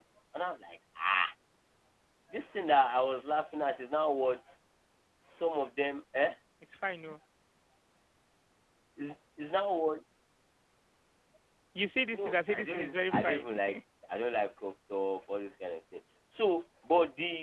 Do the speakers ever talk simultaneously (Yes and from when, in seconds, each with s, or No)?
Yes, from 12.1 s